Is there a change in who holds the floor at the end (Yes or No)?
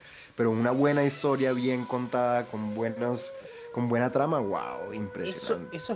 Yes